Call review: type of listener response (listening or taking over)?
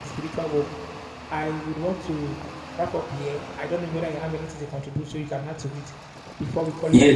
taking over